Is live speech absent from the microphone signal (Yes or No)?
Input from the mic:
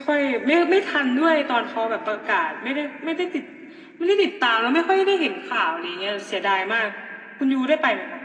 Yes